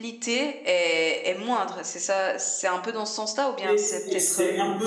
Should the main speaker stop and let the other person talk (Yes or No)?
Yes